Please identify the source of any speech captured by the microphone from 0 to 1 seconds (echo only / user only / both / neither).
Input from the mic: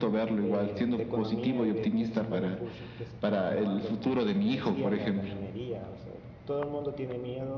both